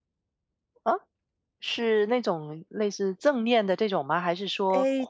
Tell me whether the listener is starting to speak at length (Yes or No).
Yes